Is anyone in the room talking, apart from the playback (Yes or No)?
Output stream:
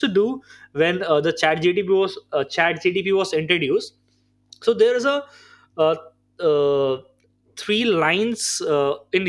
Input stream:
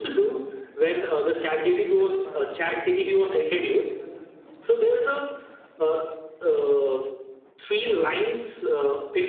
Yes